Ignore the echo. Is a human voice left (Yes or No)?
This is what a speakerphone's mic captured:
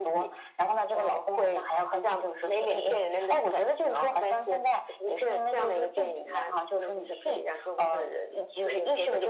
No